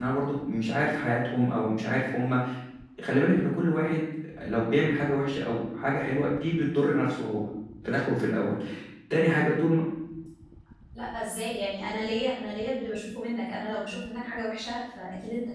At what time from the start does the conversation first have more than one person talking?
none

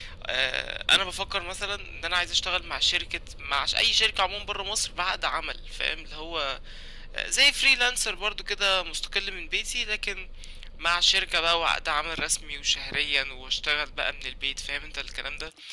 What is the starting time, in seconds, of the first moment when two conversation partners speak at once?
none

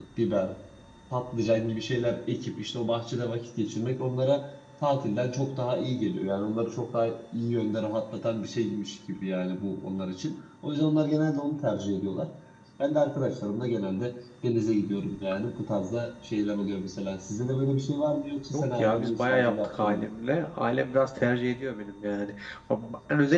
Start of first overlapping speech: 19 s

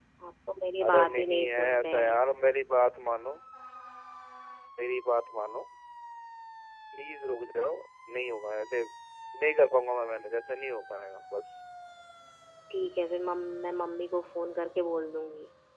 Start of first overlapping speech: 1 s

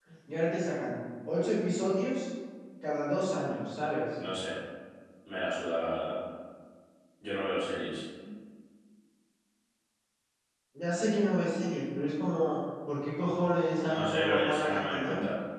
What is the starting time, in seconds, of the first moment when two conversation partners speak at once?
14 s

